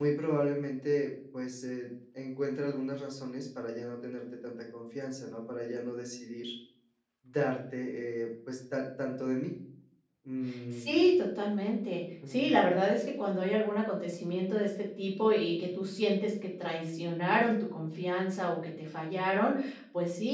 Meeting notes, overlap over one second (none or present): none